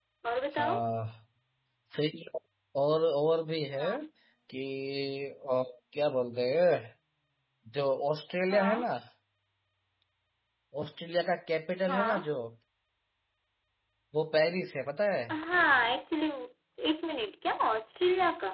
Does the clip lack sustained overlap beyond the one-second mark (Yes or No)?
Yes